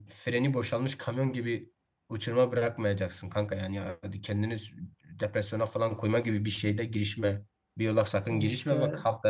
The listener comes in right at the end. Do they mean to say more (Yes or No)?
No